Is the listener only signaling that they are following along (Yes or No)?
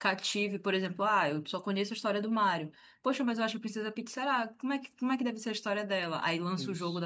Yes